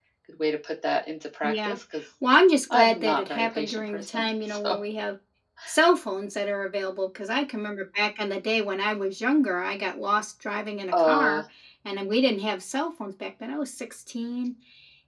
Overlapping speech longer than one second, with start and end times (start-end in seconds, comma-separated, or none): 2.7-4.8